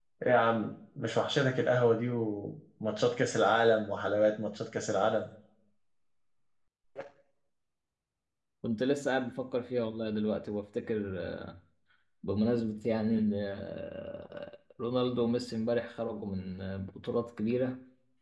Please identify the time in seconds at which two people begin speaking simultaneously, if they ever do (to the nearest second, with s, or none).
none